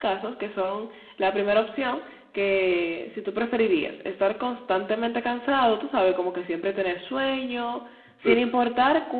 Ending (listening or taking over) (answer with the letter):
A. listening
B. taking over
A